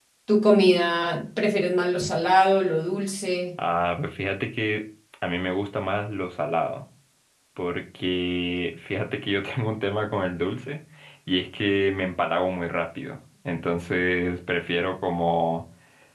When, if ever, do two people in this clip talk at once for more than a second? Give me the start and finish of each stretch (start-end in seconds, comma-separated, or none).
none